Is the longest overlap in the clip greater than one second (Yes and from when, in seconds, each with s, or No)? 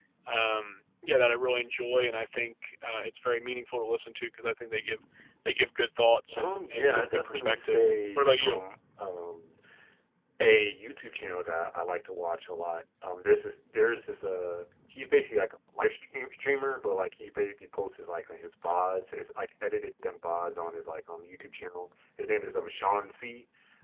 Yes, from 6.3 s